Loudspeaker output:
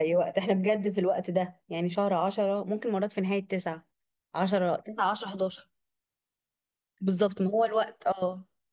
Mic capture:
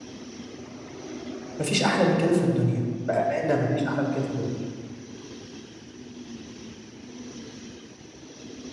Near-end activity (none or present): present